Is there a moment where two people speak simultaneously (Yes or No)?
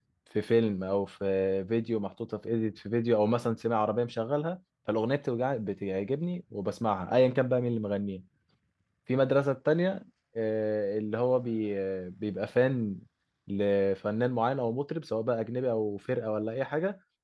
No